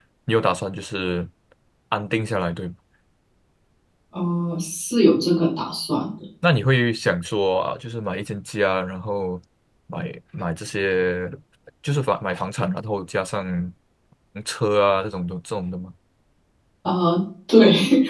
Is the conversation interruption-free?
Yes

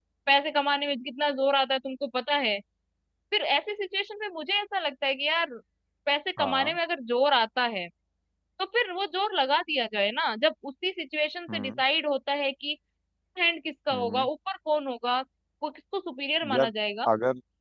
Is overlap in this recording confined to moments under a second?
Yes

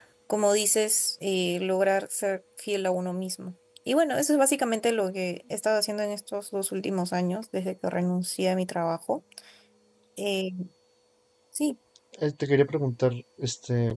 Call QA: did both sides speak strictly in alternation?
Yes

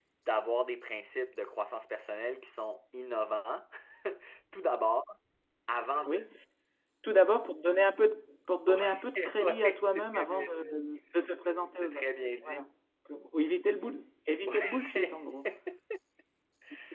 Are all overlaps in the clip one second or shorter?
No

